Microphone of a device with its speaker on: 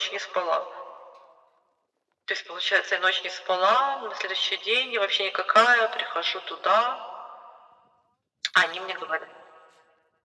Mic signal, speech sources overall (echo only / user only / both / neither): echo only